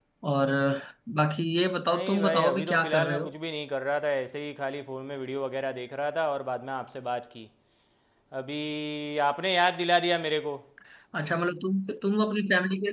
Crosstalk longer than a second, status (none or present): present